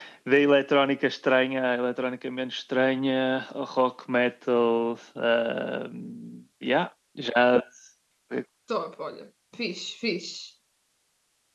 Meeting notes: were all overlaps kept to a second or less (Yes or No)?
Yes